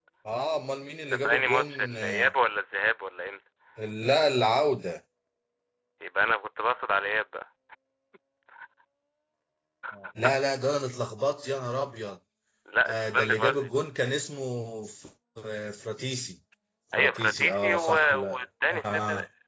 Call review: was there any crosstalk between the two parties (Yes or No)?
Yes